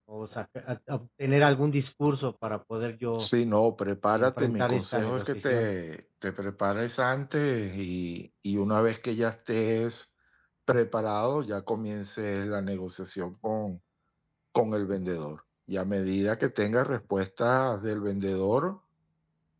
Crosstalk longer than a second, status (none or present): present